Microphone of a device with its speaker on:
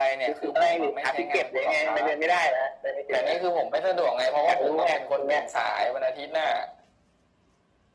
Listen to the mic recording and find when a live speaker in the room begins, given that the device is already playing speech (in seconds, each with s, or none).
none